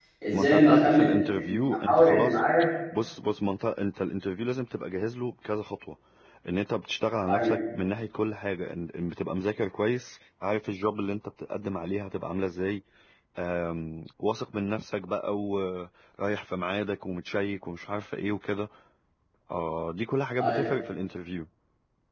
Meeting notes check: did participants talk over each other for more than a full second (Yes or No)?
Yes